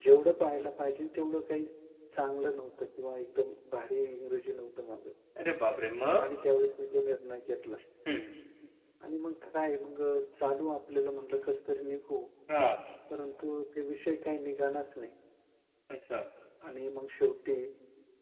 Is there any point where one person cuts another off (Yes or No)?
No